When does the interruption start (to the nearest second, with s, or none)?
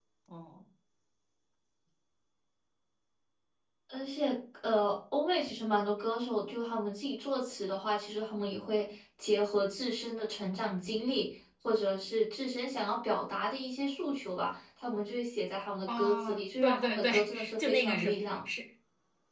16 s